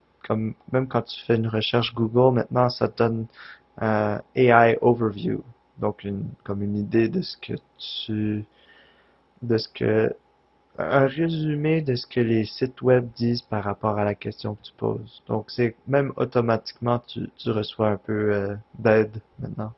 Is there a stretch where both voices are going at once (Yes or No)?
No